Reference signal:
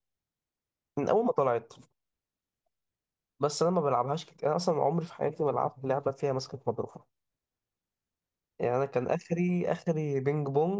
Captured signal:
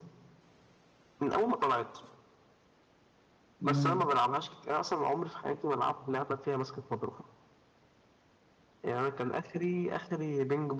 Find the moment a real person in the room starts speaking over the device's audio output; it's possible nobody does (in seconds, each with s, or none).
3.6 s